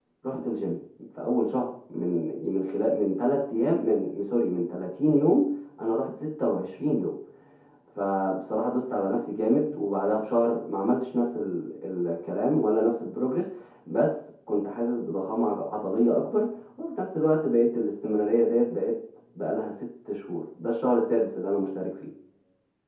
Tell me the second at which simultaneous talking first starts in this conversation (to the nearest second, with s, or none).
none